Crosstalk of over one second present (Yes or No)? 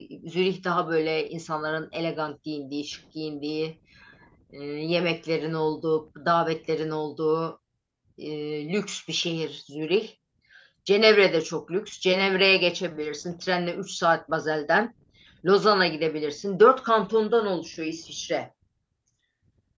No